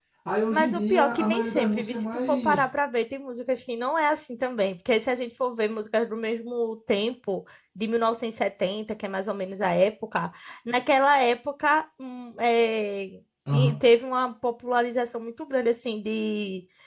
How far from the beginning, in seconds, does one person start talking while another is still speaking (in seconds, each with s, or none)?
0.5 s